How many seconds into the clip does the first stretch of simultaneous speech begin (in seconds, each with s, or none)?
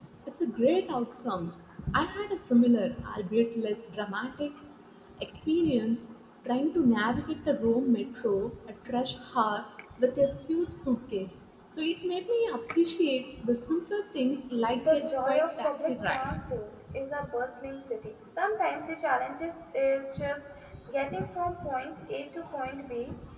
14.8 s